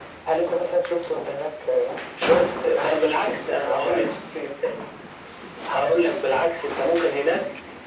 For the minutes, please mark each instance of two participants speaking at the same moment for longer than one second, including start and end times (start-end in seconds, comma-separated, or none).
2.8-4.1